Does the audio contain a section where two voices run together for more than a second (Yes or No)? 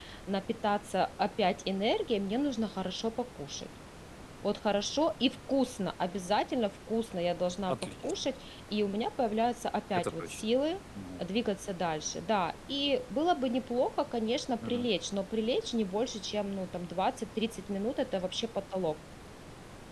No